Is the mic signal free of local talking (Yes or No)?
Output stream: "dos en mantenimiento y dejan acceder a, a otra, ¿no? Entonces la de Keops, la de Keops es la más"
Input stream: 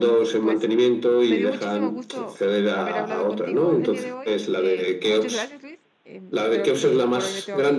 No